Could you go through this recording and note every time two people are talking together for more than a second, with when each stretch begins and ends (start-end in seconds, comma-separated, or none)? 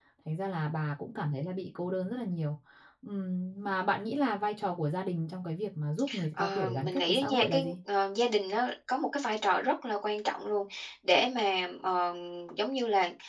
6.4-7.7